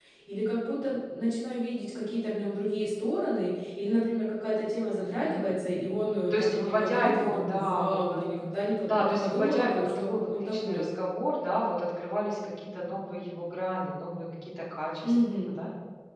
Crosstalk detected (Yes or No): Yes